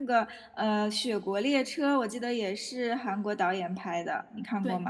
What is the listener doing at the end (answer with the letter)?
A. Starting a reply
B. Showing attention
A